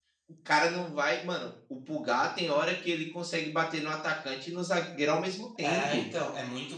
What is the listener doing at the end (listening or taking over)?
taking over